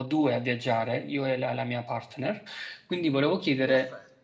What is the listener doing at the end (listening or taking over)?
listening